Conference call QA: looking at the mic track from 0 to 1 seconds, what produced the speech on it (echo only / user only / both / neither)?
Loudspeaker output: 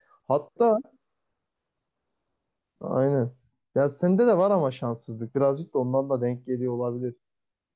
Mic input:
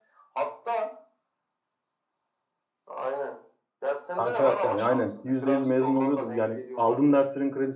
echo only